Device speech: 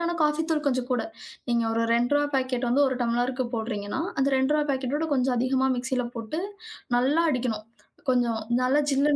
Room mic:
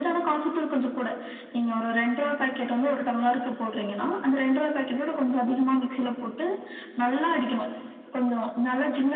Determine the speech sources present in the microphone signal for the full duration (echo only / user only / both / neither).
echo only